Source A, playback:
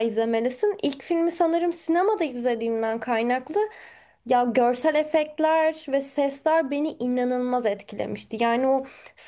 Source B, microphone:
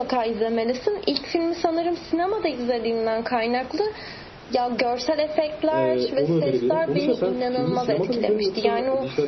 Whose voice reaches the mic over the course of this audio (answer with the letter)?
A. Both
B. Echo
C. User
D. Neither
A